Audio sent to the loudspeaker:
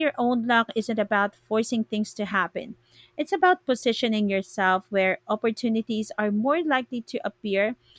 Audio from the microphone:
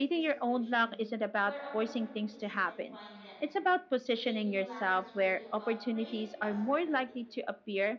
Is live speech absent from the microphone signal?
No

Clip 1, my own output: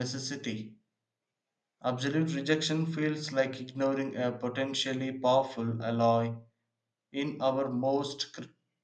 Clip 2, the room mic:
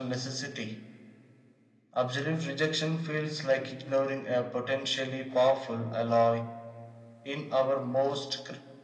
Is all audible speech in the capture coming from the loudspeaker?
Yes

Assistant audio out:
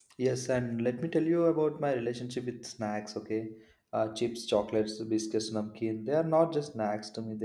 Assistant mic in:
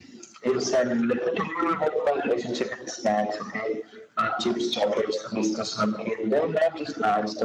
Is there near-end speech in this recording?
No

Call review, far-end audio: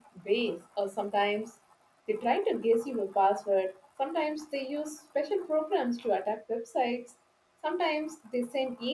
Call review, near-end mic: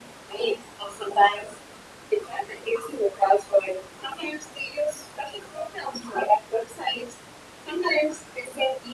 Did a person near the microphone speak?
No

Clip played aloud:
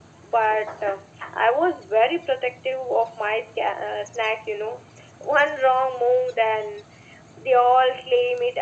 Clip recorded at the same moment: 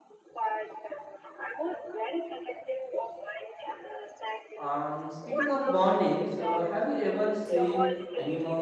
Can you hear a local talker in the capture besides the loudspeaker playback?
Yes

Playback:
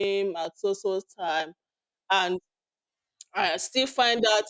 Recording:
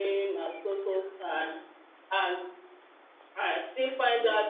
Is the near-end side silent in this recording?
No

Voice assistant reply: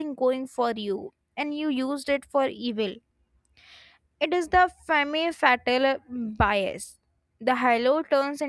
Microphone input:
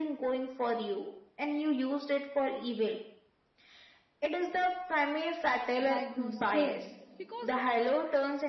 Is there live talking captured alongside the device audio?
Yes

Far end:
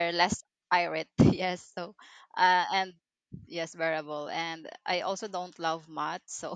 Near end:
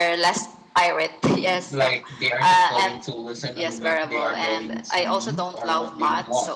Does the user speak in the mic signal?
Yes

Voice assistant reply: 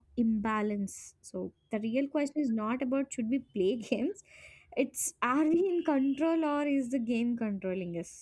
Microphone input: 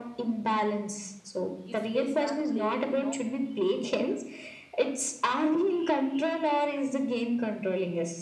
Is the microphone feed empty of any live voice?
No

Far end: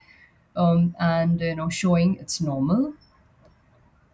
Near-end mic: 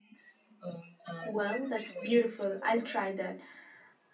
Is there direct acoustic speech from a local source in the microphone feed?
Yes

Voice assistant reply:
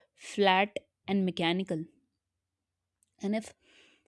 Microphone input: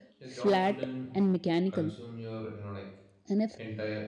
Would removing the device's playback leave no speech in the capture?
No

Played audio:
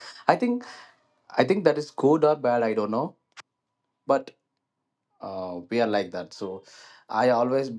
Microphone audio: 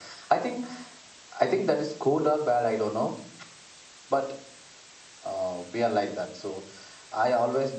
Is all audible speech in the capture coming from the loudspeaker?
Yes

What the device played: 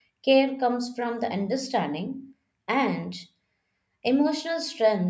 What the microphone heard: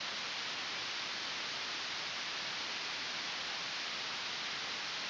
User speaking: No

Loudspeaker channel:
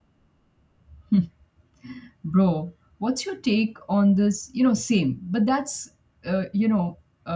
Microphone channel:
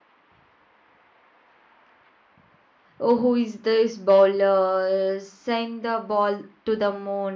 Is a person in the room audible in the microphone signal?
Yes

